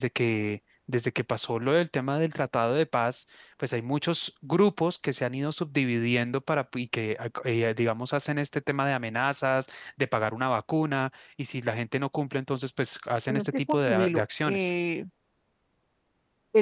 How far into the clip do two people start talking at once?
13.3 s

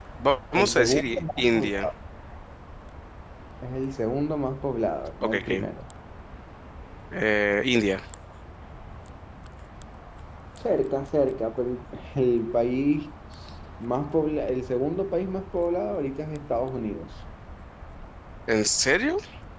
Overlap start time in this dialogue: 0.6 s

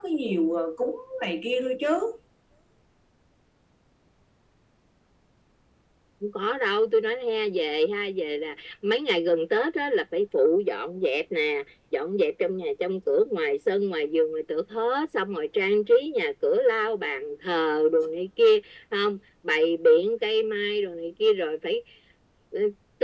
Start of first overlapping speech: none

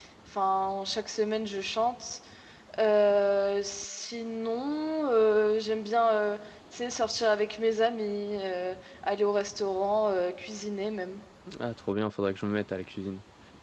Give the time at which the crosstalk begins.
none

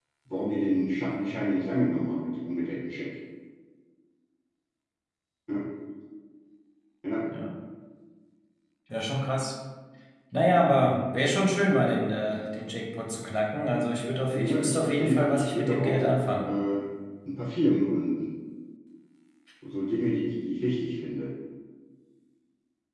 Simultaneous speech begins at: 14.3 s

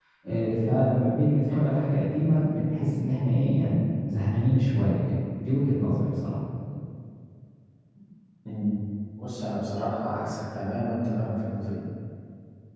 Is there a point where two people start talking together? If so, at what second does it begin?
none

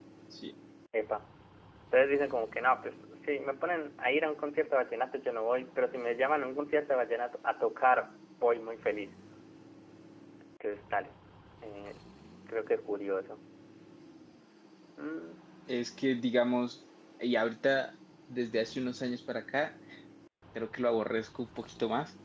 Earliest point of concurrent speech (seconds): none

